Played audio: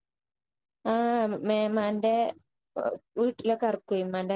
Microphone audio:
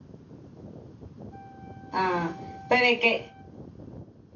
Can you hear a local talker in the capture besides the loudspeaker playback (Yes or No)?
Yes